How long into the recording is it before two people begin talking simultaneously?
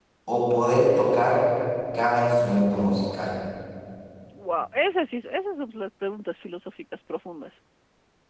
none

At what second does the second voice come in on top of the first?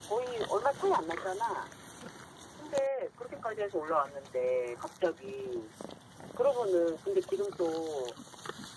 none

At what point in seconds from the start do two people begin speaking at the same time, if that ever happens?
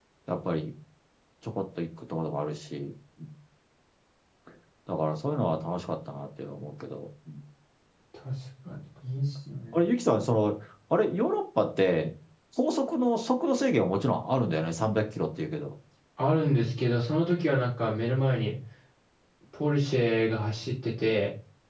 none

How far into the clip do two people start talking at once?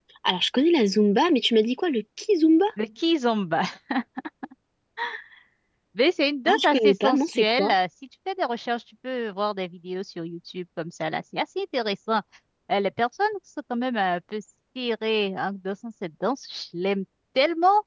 6.5 s

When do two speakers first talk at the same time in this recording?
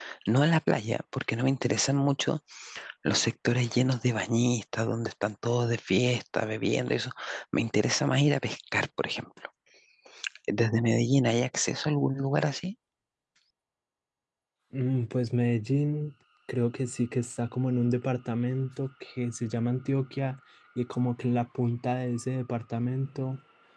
none

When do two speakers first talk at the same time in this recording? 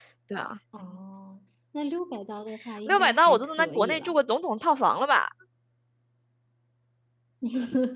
2.9 s

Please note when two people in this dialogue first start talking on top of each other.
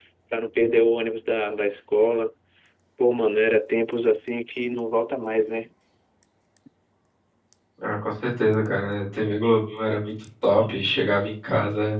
none

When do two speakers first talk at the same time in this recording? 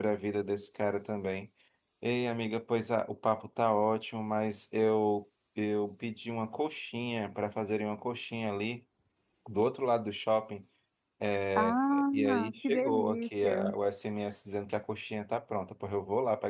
11.6 s

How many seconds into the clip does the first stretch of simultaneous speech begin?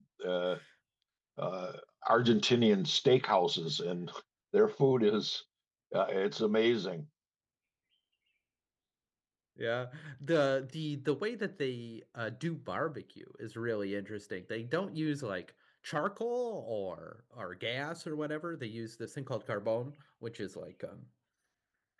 none

